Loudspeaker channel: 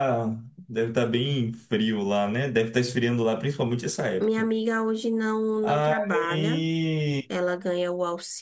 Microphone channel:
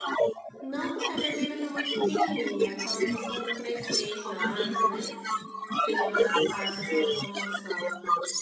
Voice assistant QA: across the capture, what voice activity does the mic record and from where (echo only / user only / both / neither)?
both